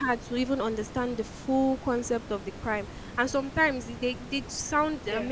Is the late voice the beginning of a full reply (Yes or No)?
No